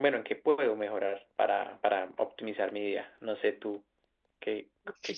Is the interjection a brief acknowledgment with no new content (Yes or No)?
No